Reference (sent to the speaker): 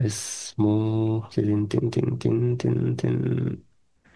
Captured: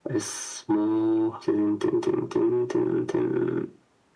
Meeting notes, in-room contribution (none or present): none